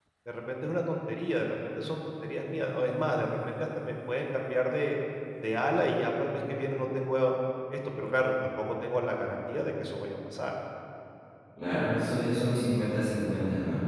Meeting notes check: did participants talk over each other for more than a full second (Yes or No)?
No